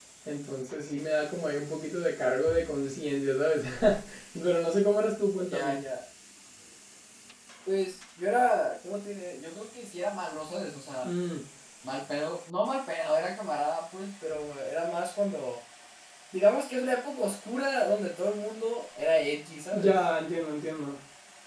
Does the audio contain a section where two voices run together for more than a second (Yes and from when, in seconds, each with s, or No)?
No